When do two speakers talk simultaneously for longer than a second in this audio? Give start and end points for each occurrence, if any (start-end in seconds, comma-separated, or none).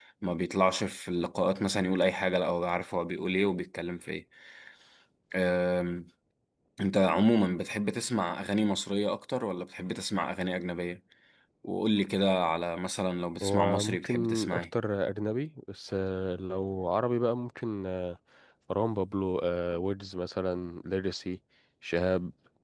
13.4-14.6